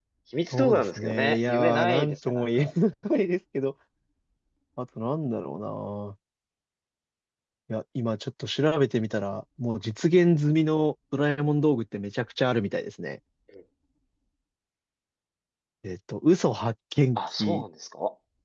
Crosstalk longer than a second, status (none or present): present